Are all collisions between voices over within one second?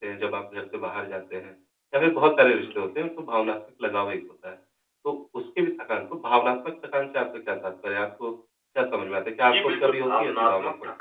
No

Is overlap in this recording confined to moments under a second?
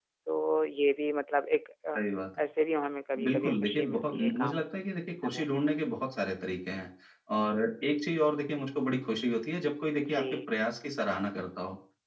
No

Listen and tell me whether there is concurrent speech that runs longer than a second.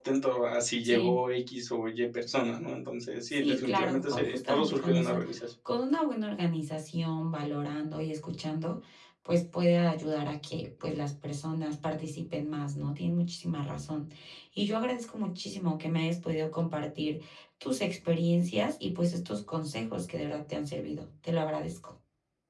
Yes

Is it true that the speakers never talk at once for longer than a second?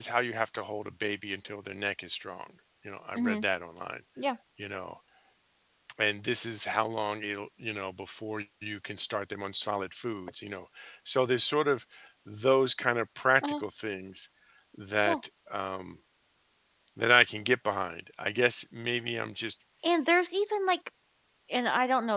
Yes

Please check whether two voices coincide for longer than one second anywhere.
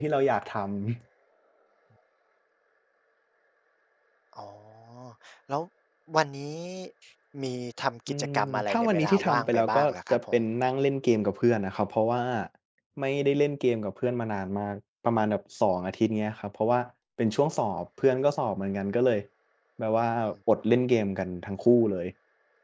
Yes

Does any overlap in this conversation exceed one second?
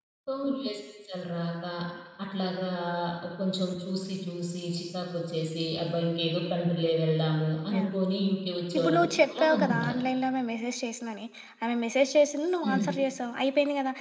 Yes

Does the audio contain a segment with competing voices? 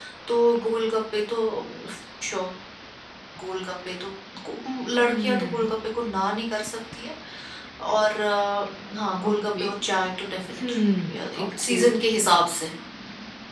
Yes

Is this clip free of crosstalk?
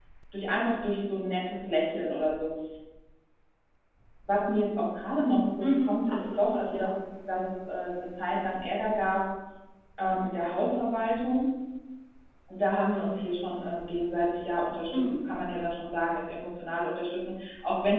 No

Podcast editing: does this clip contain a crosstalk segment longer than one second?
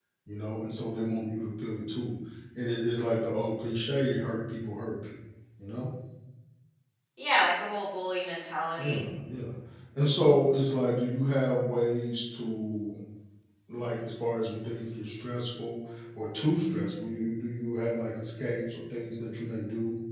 No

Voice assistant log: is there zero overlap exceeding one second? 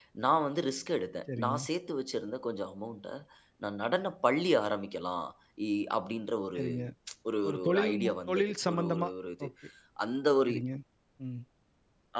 No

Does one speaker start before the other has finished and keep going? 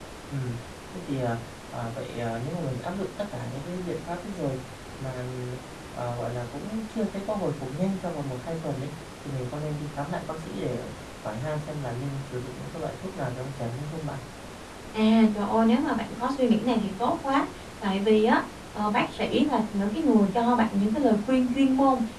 No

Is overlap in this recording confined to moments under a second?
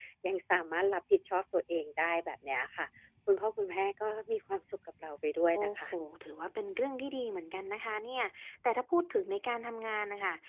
Yes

